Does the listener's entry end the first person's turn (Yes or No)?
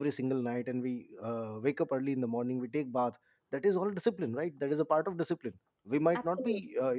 No